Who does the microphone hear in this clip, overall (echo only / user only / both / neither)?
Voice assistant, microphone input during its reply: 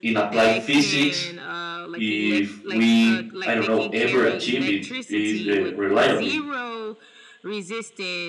both